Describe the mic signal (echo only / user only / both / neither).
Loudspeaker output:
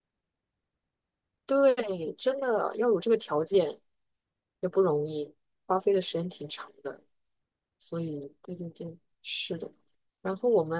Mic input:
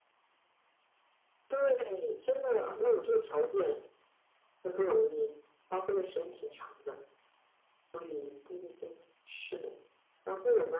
echo only